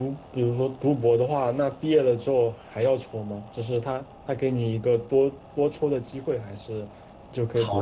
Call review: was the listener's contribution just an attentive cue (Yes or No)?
No